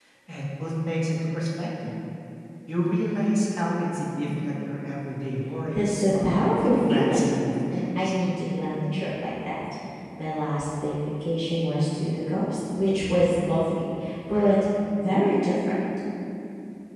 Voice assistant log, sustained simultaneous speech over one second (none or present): present